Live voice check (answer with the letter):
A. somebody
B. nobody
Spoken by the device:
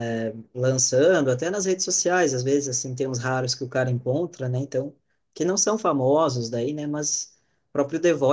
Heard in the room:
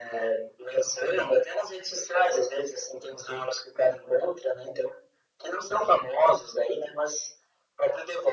B